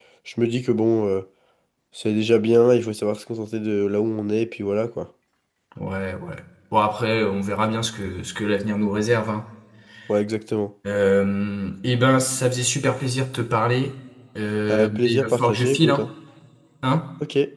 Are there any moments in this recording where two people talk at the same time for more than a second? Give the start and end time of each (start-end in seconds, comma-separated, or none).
14.7-16.1